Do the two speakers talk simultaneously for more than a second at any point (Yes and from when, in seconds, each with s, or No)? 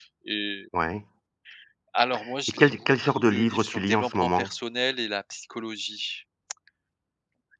Yes, from 2.5 s